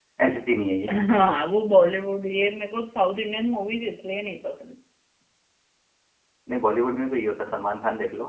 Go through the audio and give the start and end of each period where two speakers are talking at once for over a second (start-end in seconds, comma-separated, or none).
none